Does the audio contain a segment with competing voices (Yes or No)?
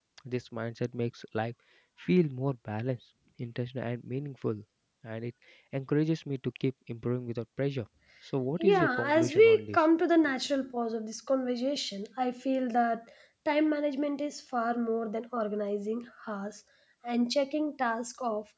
Yes